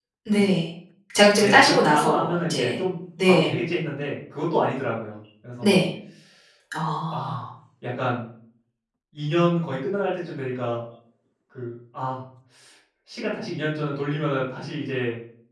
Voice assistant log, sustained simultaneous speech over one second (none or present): present